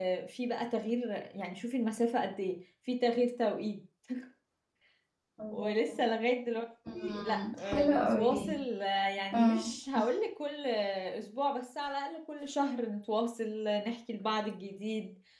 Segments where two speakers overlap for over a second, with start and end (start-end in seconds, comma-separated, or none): 6.9-8.6